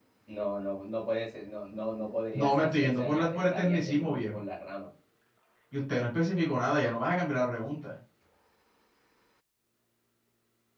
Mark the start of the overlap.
2.3 s

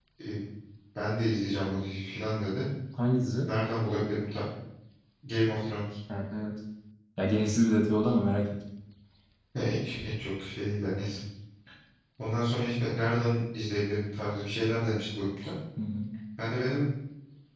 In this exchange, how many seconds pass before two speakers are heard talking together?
none

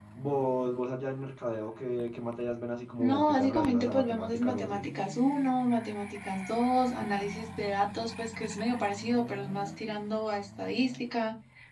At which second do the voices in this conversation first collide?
3.0 s

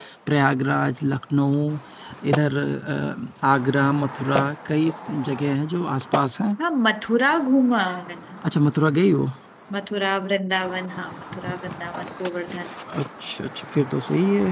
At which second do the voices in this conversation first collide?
none

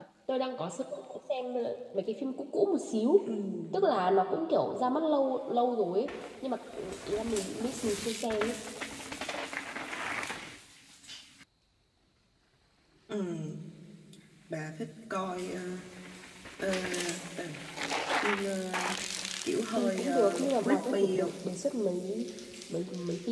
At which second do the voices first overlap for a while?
19.8 s

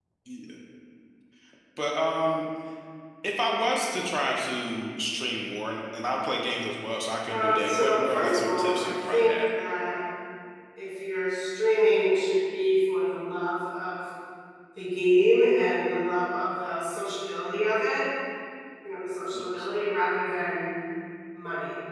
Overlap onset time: 7.3 s

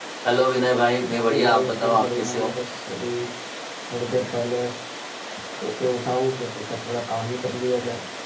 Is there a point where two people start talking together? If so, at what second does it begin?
1.1 s

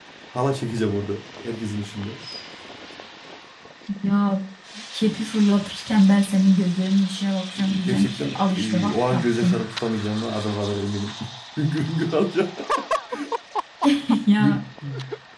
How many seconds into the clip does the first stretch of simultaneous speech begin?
7.6 s

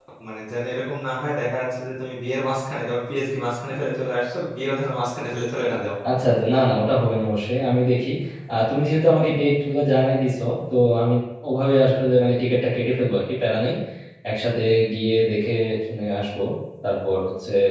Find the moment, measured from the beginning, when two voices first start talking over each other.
none

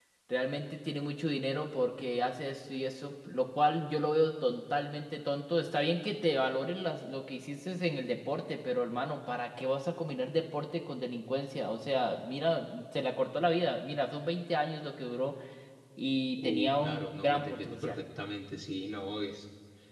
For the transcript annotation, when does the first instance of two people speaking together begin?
16.4 s

